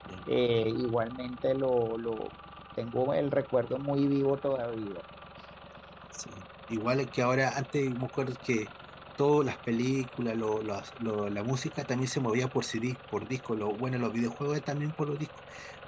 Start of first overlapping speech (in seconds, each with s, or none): none